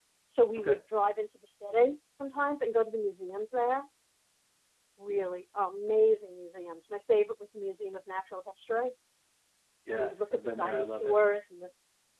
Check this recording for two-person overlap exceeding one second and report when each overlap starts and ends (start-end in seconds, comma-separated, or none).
9.9-11.2